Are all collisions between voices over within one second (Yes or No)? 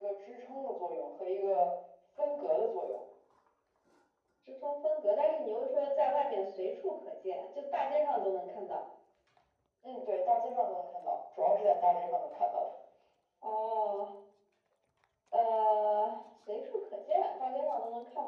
Yes